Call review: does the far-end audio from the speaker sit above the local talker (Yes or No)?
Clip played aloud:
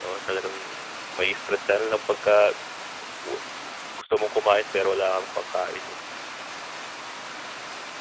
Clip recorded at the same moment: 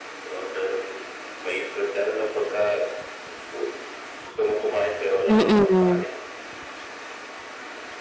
No